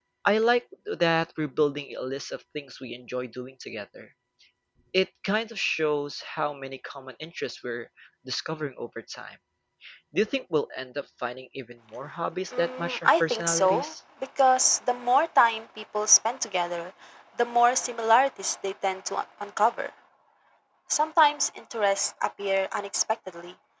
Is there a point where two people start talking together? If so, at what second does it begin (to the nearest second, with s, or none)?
13 s